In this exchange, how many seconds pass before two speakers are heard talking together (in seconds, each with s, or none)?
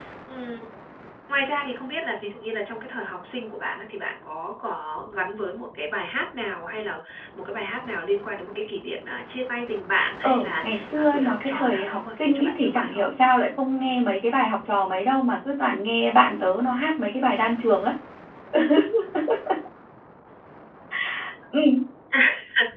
10.2 s